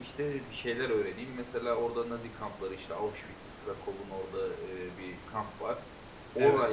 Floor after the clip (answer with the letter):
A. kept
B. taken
A